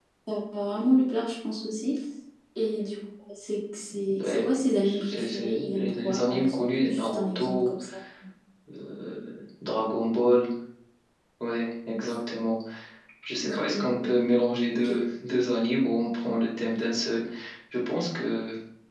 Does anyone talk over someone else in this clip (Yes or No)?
Yes